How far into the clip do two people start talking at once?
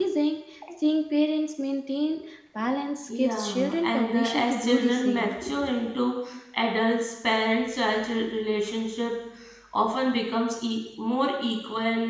3.1 s

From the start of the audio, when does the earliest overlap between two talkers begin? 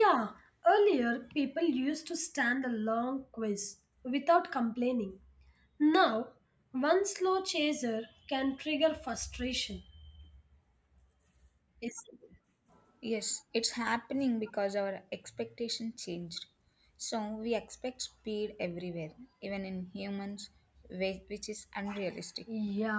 none

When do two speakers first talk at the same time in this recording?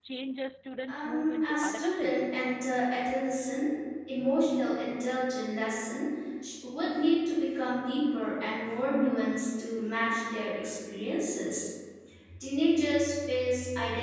0.9 s

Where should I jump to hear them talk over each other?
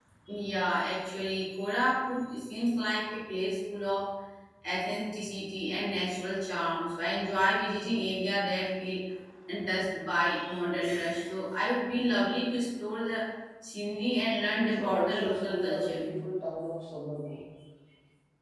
14.5 s

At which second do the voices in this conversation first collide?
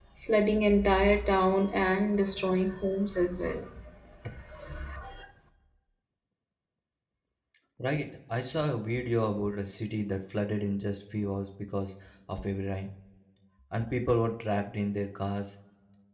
none

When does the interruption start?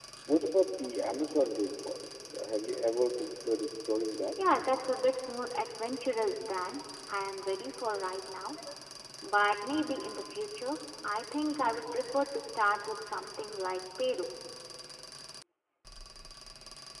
none

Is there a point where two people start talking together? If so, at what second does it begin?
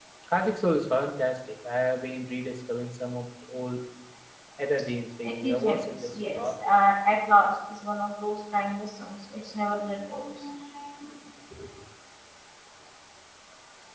5.2 s

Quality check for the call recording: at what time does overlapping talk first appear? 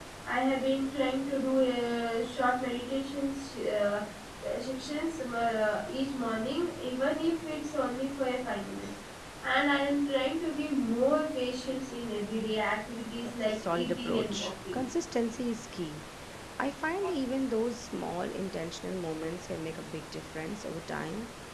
13.2 s

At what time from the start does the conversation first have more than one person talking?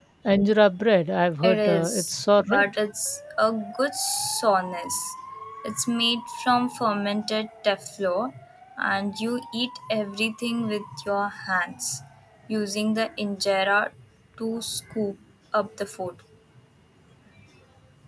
1.4 s

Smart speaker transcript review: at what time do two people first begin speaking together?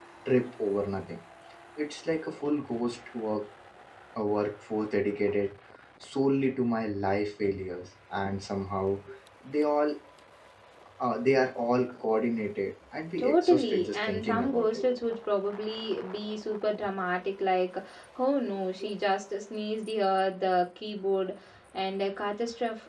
13.2 s

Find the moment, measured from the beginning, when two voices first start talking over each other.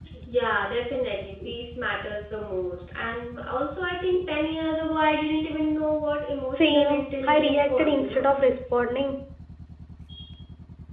6.5 s

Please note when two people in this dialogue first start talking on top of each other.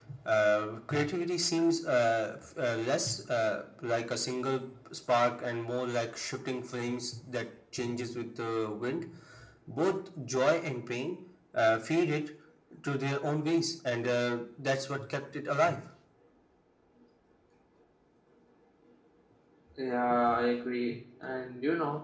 none

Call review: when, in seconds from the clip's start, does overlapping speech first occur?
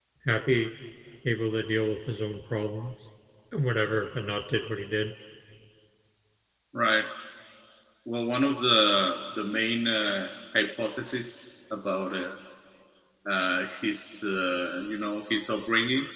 none

